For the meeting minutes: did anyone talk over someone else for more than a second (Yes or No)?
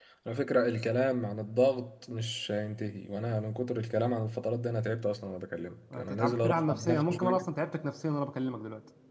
Yes